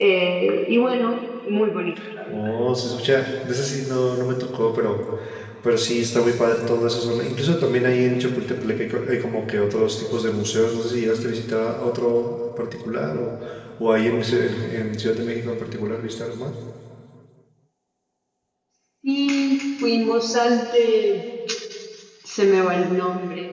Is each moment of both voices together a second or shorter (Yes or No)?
Yes